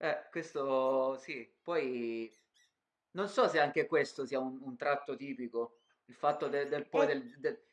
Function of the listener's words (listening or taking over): listening